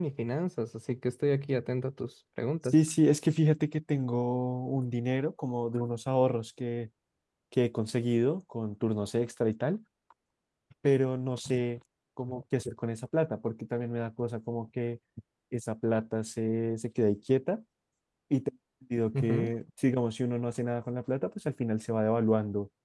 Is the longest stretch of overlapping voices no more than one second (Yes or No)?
Yes